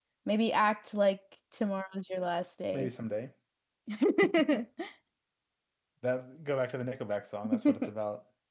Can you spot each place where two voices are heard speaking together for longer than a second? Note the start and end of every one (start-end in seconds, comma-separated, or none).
none